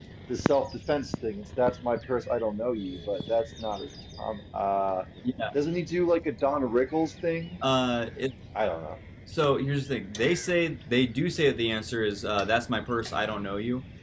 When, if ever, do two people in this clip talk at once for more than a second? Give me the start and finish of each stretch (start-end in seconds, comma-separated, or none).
none